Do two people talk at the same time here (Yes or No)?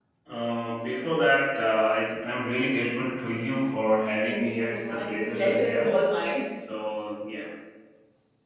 Yes